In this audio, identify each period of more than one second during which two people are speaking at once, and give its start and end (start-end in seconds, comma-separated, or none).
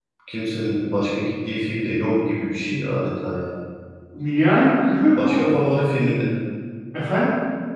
none